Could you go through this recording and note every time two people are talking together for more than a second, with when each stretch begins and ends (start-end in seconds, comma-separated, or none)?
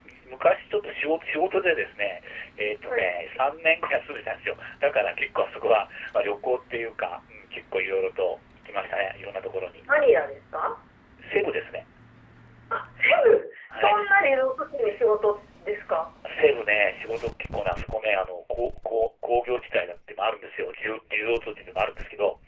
none